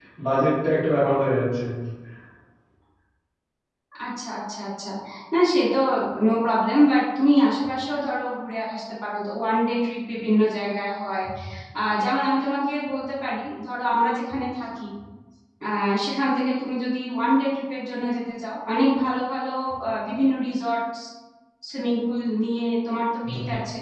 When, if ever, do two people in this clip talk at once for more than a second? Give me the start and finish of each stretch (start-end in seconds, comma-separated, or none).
none